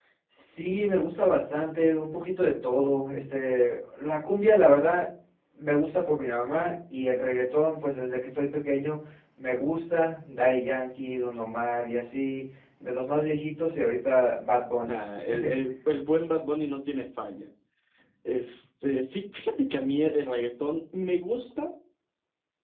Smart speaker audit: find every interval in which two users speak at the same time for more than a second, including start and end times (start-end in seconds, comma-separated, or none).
none